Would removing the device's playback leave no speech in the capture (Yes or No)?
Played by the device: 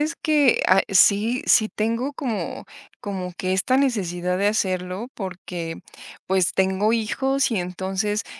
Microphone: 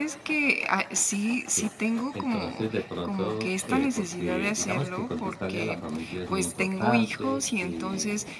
No